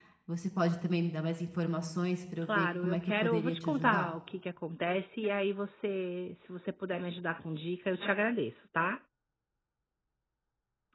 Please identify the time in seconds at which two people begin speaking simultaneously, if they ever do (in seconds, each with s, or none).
2.4 s